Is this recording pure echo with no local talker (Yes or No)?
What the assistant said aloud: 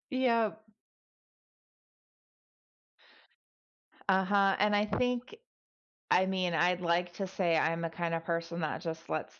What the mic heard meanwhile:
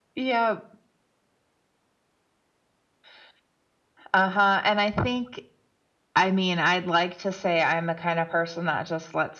Yes